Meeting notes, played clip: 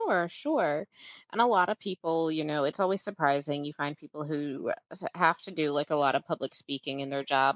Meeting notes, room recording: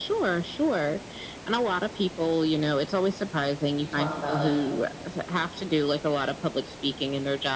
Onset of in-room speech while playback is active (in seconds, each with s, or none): 3.8 s